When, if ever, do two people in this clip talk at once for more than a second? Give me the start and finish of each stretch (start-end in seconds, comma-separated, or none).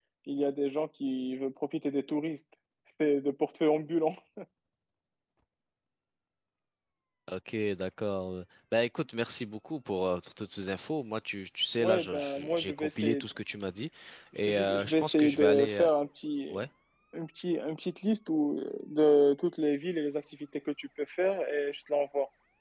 11.8-13.2, 14.5-15.9